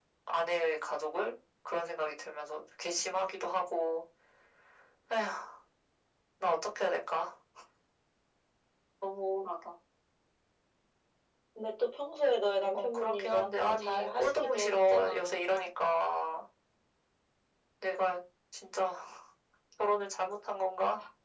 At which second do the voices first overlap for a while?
12.7 s

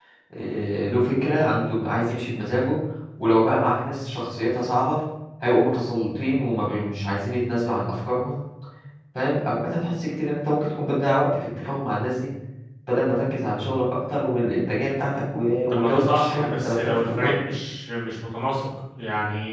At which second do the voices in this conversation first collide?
15.7 s

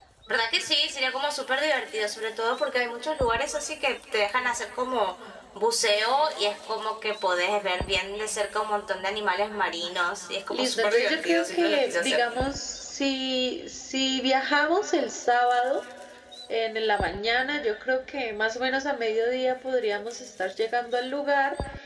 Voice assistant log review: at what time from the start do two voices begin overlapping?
10.5 s

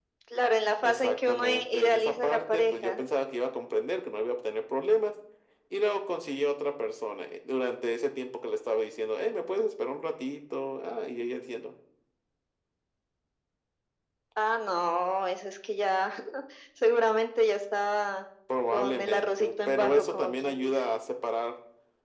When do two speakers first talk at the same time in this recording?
0.8 s

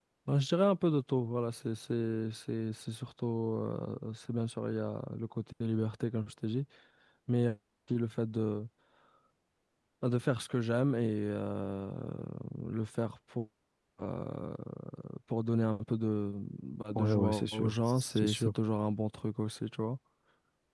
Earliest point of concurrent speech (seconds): 16.9 s

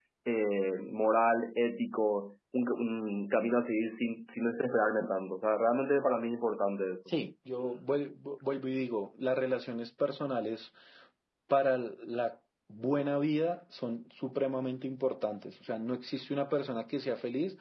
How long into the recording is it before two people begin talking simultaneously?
none

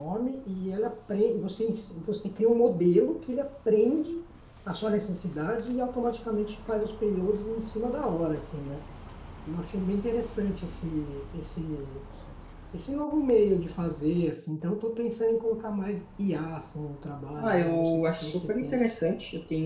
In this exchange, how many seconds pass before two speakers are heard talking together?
17.4 s

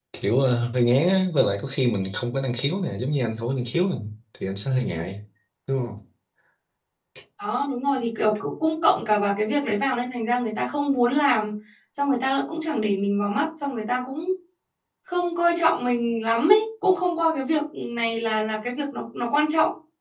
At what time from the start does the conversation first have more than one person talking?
none

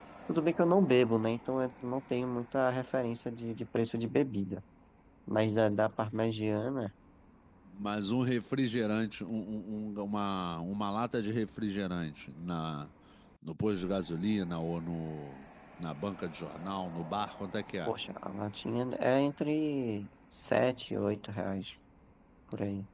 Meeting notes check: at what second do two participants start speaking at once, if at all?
none

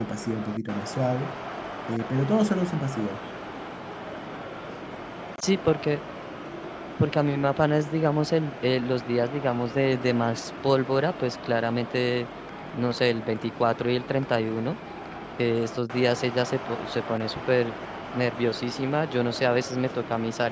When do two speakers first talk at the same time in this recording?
none

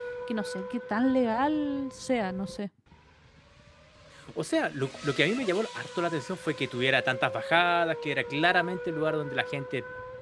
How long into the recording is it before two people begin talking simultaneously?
none

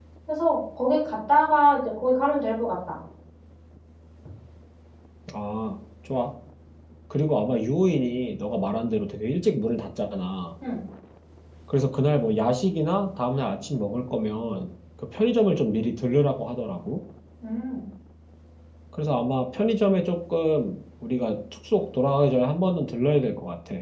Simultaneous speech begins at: none

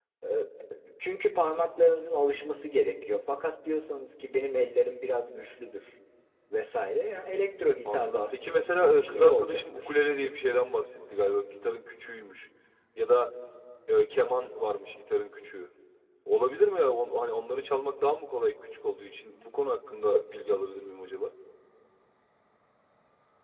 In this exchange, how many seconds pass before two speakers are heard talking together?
7.8 s

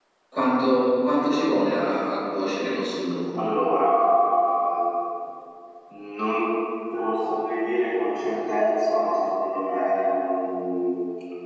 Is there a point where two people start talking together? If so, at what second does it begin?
none

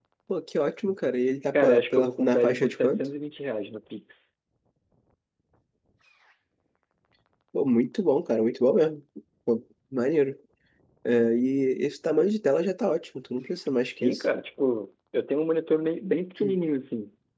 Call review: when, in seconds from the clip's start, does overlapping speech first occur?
1.5 s

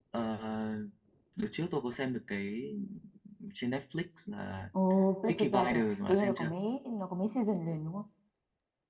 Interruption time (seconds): 5.3 s

